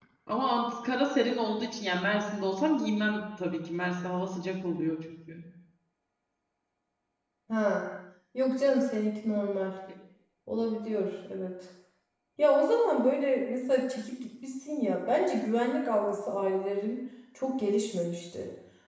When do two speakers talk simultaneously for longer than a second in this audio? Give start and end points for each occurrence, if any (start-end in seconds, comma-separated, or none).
none